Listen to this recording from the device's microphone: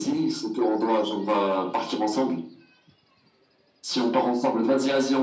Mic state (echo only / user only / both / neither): echo only